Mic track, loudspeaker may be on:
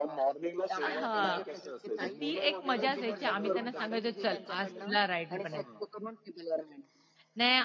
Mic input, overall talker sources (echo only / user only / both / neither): both